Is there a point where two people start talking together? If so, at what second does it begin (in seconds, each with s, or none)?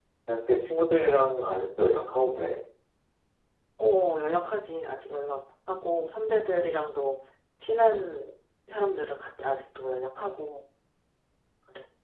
none